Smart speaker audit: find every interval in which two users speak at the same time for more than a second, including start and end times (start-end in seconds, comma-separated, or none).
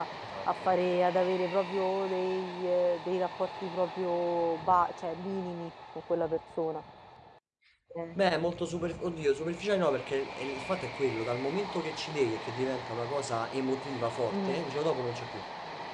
none